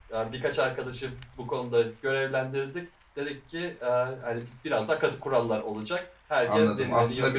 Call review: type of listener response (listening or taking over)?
taking over